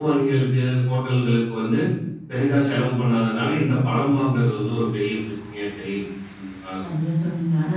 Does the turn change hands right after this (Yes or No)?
Yes